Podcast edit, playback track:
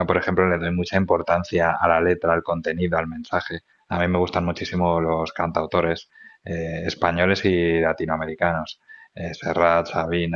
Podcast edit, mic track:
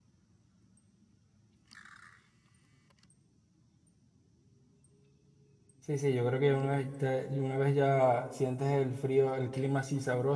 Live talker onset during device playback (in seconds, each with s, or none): 5.8 s